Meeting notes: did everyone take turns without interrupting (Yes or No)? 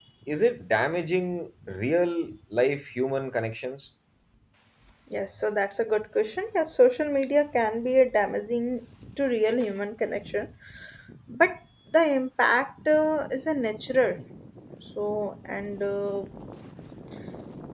Yes